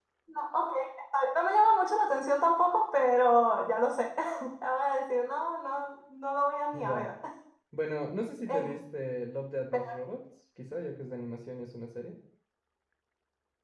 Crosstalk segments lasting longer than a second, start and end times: none

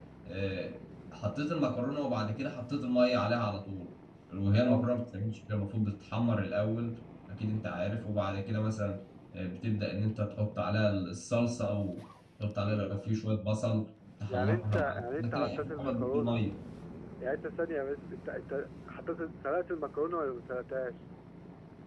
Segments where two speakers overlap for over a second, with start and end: 14.3-16.4

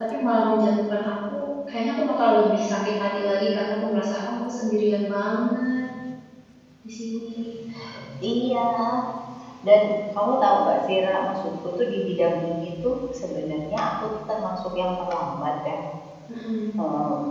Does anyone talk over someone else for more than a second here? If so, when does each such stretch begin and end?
none

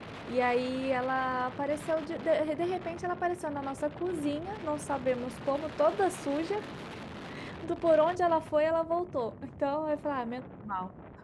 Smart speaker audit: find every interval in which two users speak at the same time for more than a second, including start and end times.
none

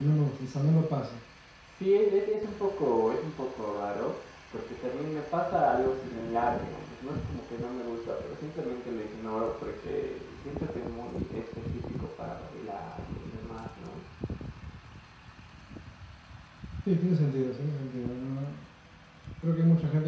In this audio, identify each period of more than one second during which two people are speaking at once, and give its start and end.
none

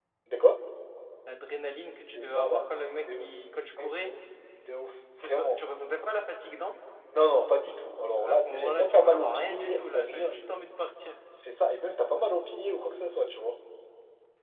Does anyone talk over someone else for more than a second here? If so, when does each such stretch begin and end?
8.2-10.3

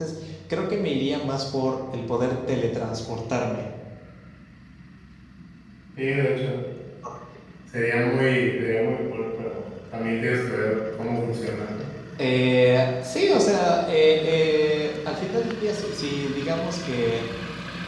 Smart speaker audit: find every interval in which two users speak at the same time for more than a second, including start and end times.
none

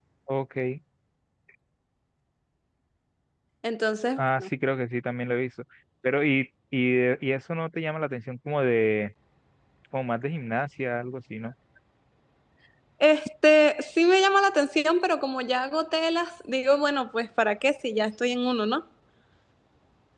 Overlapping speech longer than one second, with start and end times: none

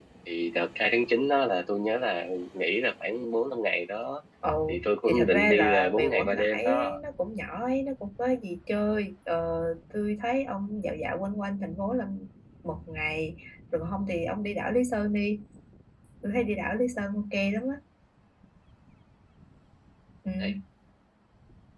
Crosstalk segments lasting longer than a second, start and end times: 4.7-7.0

